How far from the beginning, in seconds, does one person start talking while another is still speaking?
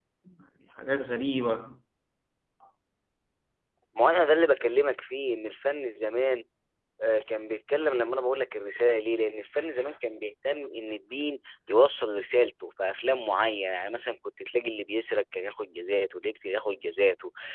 none

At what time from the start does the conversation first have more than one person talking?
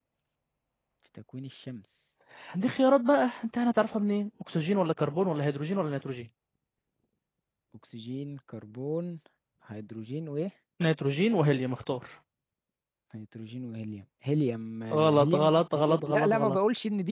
14.9 s

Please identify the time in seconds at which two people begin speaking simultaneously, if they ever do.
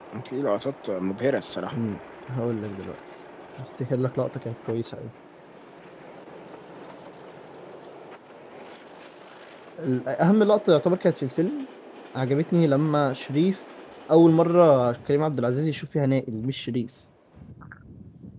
none

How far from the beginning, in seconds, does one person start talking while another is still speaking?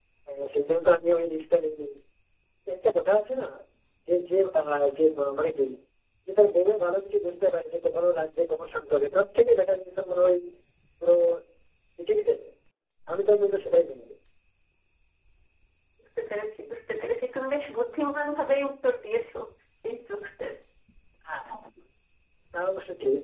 none

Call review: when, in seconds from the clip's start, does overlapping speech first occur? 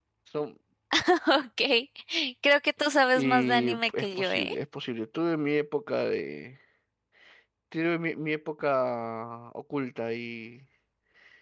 3.1 s

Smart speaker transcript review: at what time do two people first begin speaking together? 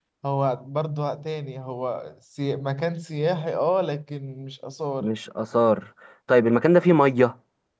none

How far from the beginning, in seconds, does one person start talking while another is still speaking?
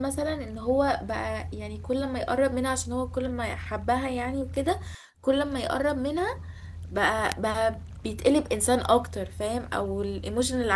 none

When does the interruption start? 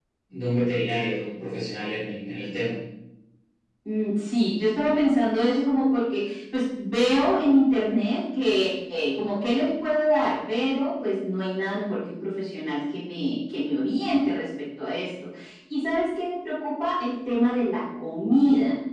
none

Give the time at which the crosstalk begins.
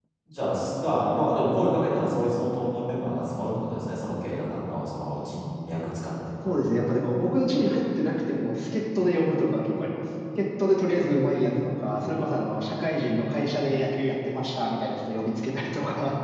none

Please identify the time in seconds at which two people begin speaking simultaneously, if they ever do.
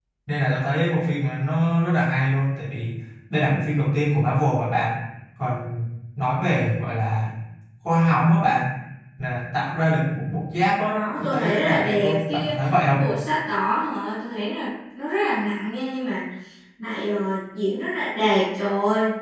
10.9 s

